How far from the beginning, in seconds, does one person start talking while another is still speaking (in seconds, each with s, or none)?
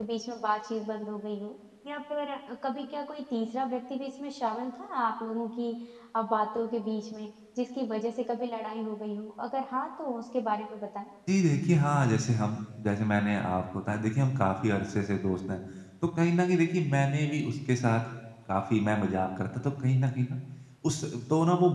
none